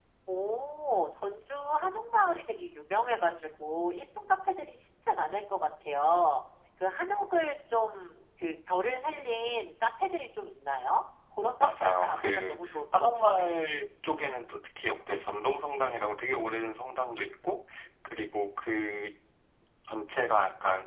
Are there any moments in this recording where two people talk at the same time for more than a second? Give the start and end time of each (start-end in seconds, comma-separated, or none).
11.6-13.5